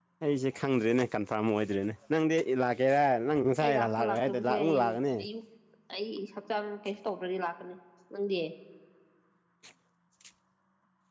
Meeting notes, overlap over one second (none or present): present